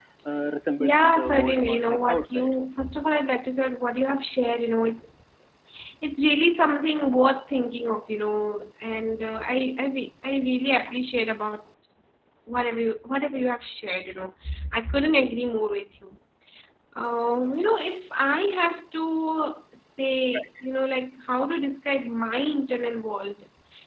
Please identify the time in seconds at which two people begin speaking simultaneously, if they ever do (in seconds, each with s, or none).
0.8 s